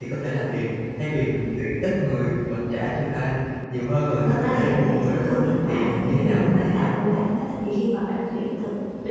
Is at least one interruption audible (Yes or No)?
Yes